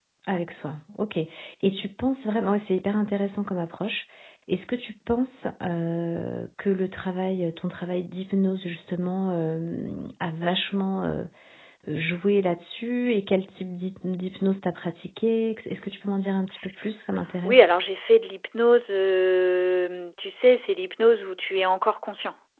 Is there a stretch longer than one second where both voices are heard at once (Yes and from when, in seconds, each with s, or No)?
No